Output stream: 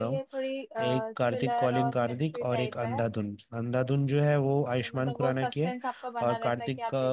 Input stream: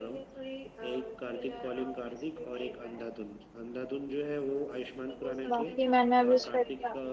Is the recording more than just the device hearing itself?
Yes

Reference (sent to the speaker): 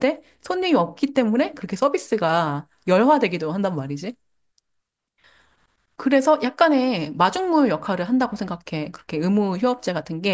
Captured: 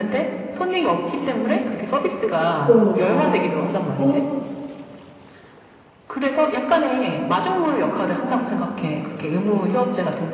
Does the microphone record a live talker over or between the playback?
Yes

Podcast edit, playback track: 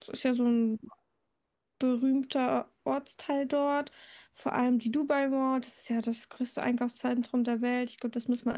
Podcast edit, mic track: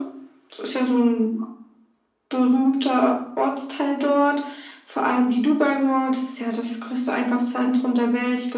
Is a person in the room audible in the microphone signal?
No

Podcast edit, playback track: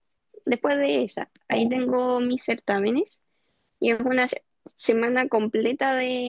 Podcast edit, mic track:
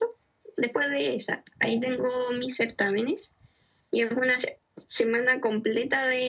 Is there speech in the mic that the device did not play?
No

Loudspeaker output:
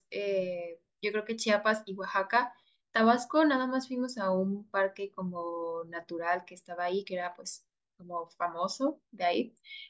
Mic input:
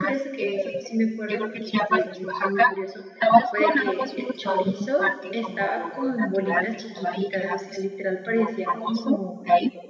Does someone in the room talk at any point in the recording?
Yes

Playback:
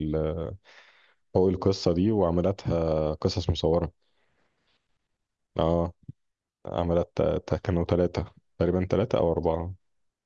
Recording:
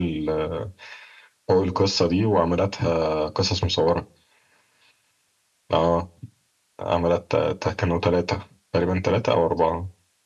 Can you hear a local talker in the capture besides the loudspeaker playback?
No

